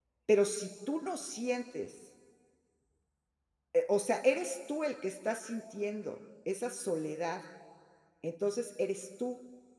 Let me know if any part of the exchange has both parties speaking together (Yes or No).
No